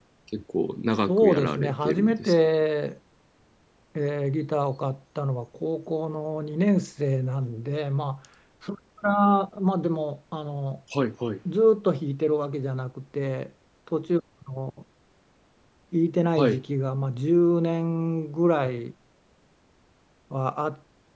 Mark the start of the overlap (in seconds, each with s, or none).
1.1 s